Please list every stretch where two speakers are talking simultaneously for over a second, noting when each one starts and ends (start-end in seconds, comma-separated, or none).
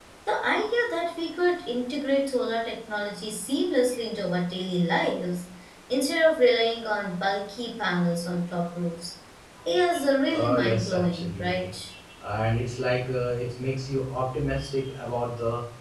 10.3-11.7